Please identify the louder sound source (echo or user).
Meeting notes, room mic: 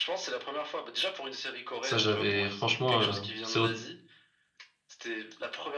user